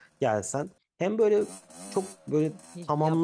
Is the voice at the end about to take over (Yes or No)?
Yes